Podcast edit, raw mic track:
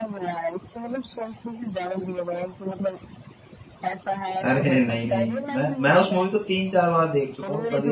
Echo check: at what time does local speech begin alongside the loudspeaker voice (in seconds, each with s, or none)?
4.4 s